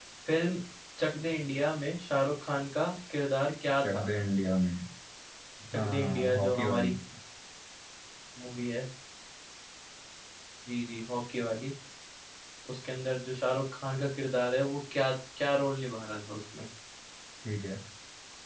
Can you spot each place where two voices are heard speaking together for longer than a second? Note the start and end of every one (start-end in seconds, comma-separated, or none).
5.7-6.9